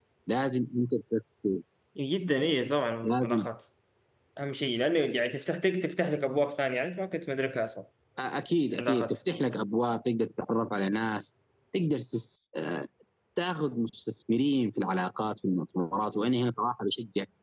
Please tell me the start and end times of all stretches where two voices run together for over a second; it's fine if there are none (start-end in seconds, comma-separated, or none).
none